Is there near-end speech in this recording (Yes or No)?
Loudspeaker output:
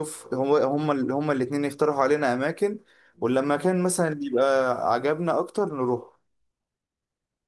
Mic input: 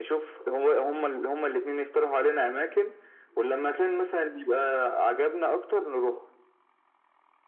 No